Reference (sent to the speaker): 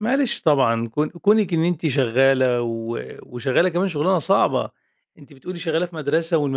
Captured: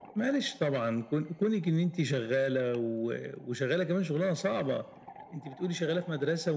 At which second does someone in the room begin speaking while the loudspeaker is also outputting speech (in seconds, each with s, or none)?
none